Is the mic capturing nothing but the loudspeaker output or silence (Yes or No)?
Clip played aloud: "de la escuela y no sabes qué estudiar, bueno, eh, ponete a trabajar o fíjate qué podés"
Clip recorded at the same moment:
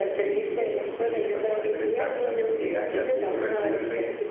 No